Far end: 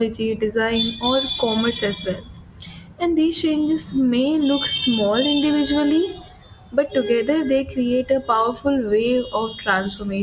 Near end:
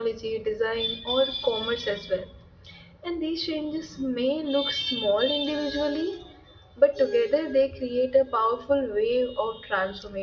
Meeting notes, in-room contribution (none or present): none